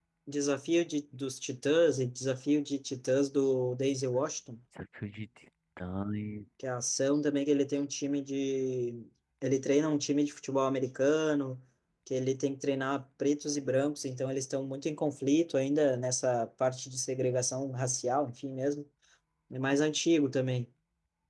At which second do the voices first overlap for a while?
none

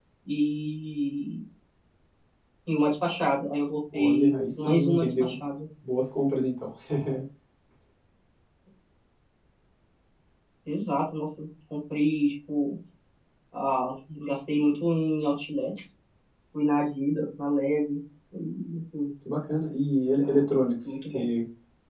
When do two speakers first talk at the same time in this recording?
3.9 s

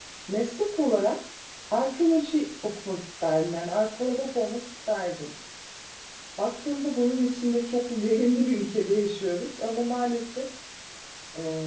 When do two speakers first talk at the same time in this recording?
none

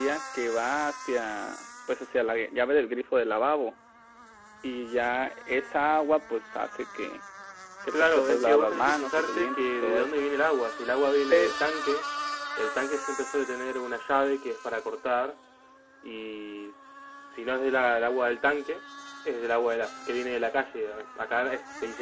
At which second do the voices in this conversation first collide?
7.9 s

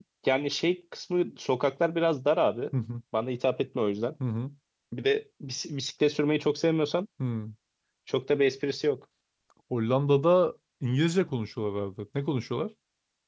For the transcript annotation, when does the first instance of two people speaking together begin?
none

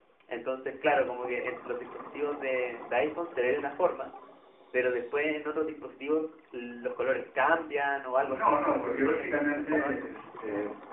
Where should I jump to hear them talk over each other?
8.2 s

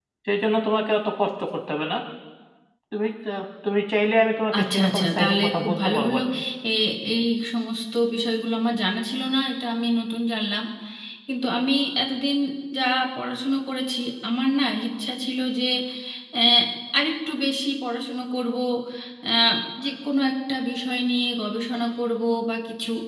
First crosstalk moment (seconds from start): 4.5 s

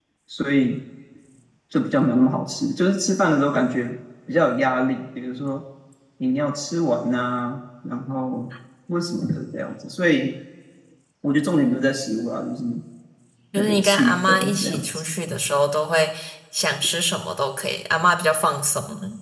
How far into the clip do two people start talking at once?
13.6 s

